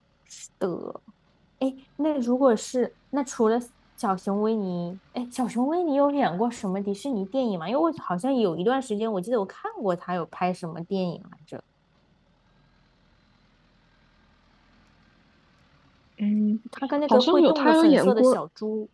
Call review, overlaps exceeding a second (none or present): present